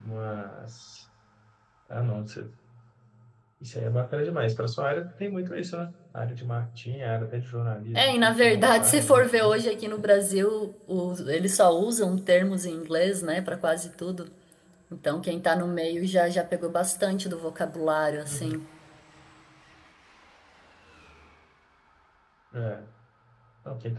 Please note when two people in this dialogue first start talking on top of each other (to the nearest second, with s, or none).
8 s